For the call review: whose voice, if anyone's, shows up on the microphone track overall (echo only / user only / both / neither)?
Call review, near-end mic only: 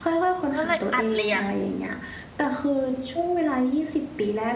both